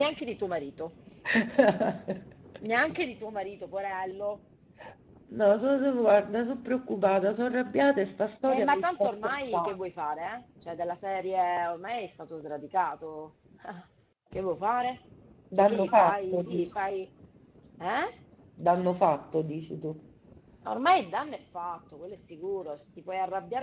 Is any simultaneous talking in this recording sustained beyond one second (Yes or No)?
Yes